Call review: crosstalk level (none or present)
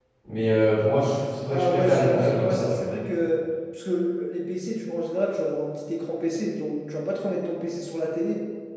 present